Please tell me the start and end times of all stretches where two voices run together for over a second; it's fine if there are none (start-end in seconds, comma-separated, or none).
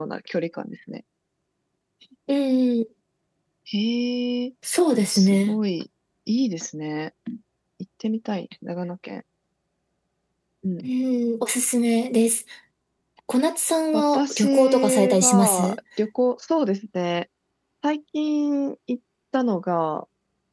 13.9-15.8